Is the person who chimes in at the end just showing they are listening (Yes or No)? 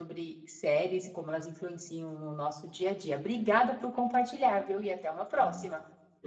No